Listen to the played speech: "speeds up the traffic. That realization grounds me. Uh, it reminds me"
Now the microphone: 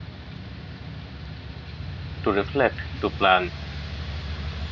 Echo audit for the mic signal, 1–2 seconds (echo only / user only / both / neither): neither